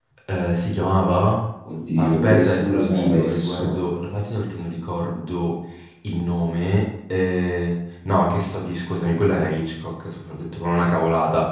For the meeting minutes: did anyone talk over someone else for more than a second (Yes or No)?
Yes